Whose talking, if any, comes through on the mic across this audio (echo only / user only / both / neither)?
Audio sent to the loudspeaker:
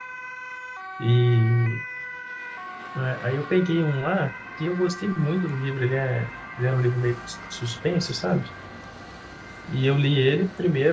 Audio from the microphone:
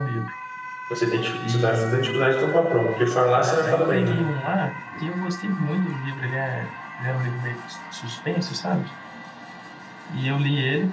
both